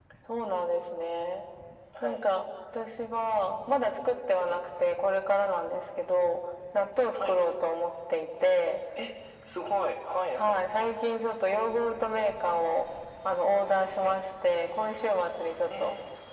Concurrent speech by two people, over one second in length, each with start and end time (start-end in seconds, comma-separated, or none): none